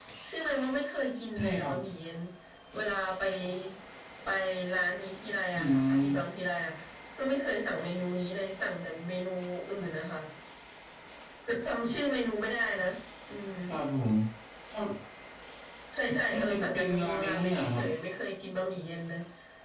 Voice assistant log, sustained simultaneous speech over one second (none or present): present